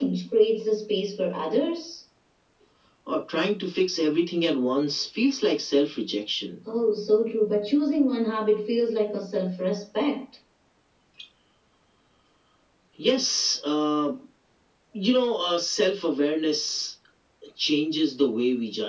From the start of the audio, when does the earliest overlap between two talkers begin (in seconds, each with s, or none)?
none